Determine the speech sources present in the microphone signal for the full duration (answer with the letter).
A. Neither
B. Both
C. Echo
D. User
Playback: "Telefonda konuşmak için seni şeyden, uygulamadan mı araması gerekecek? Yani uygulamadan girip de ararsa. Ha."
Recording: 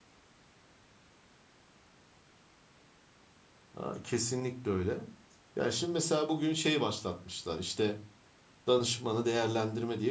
D